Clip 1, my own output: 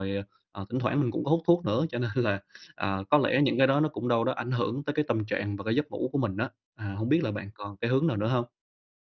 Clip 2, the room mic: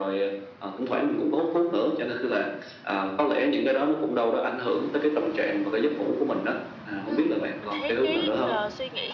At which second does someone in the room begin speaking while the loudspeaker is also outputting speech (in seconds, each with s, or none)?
7.0 s